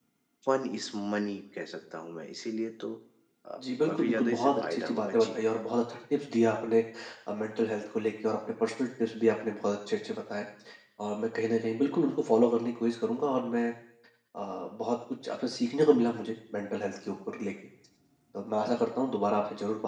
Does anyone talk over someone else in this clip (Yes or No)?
Yes